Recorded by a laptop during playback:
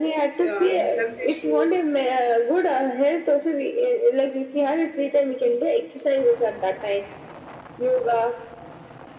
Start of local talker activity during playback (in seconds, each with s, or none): 0.5 s